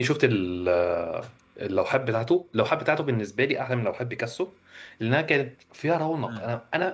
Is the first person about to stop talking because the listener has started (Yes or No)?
No